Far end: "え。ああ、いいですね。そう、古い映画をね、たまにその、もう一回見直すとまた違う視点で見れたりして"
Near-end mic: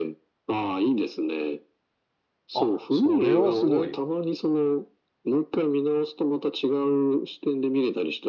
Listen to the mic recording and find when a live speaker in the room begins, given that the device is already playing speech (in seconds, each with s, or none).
2.5 s